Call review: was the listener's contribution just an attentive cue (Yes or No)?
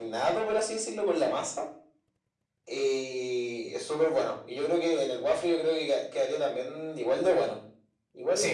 No